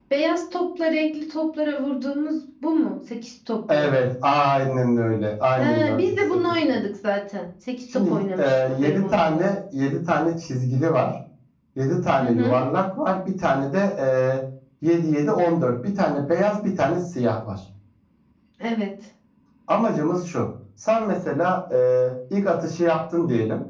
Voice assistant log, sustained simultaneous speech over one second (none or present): present